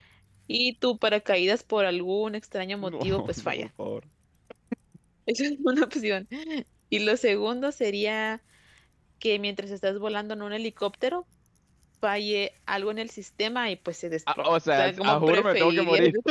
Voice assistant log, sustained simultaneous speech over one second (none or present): present